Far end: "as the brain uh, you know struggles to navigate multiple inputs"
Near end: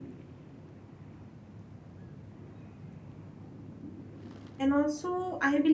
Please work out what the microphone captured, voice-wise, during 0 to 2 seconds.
neither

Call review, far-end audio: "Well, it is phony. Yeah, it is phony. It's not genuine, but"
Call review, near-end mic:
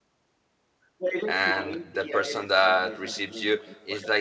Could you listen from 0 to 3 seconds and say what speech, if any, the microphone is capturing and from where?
both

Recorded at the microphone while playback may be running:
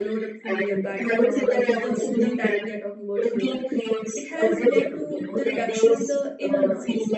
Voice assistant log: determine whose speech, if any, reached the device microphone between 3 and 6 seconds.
both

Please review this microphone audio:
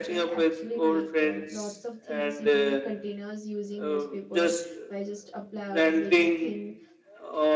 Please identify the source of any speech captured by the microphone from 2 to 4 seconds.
both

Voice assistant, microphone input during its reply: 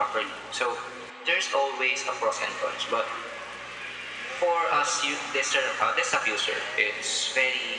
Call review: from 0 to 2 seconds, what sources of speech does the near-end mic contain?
echo only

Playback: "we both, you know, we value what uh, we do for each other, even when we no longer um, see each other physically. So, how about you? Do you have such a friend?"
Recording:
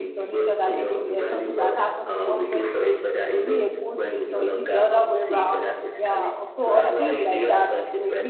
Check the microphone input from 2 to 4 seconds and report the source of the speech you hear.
both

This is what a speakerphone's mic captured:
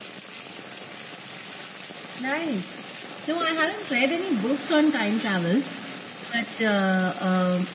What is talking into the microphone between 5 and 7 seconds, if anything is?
echo only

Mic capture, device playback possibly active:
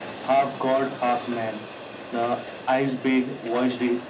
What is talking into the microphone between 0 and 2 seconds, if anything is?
echo only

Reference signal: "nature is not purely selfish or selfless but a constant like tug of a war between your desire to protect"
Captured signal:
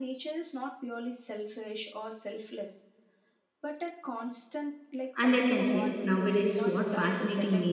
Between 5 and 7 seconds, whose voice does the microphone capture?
both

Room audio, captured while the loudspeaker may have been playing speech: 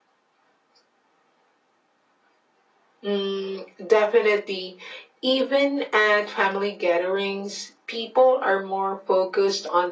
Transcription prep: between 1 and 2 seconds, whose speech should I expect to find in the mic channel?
neither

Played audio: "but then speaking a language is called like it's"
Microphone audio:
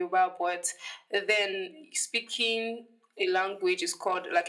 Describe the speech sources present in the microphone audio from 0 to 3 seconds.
echo only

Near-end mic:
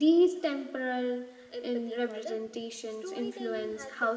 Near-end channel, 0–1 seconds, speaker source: echo only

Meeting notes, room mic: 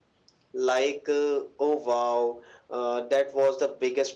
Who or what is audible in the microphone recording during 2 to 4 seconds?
echo only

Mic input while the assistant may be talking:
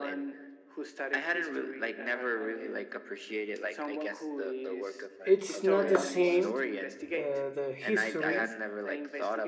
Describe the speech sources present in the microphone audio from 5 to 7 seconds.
both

